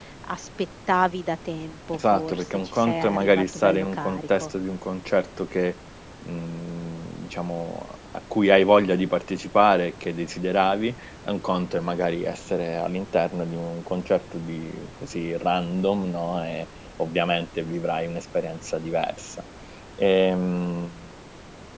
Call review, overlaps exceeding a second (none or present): present